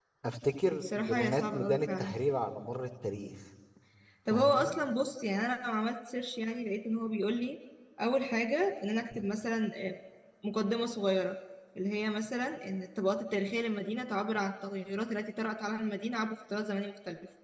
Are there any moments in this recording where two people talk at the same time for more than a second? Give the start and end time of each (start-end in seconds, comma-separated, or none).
0.8-2.1